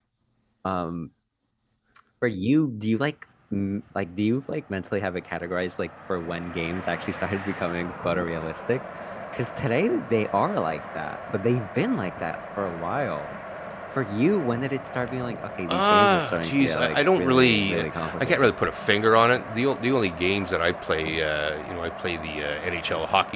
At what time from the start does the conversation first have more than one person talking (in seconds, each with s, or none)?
15.7 s